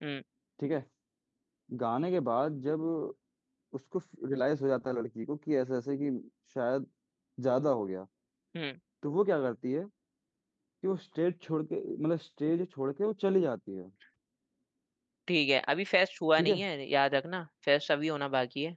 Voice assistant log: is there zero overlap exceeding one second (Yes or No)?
Yes